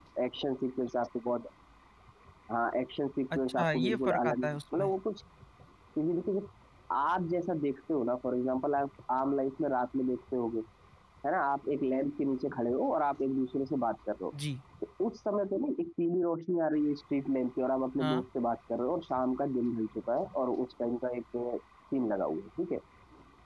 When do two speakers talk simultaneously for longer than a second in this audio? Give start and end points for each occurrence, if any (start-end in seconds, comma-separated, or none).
3.4-4.9